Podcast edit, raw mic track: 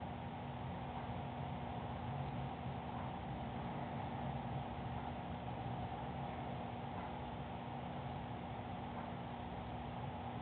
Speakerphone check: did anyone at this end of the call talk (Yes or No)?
No